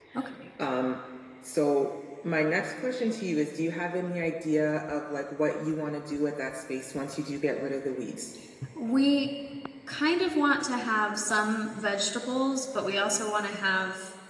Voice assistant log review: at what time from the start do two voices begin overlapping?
none

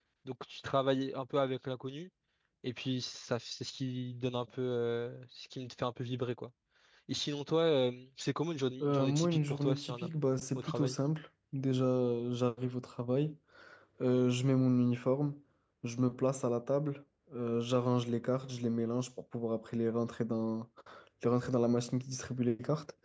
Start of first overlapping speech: 8.8 s

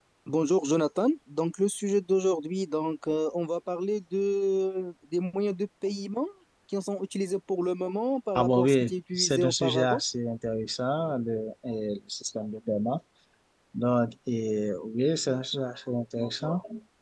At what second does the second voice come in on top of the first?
8.3 s

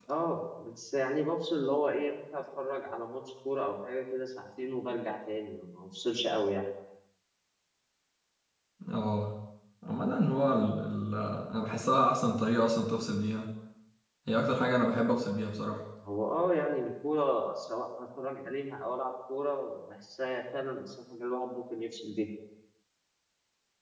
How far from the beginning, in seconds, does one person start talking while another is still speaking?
none

